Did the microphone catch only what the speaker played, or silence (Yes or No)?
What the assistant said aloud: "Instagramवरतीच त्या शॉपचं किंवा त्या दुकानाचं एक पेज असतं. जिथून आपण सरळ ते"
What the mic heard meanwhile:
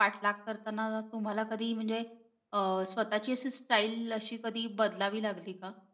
No